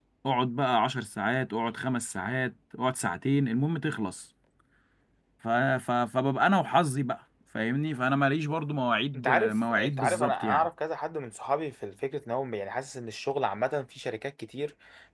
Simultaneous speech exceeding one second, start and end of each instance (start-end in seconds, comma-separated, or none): 9.1-10.7